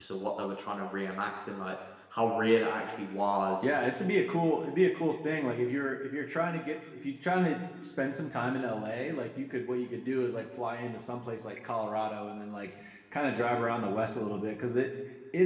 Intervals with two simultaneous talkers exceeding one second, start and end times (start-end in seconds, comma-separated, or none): none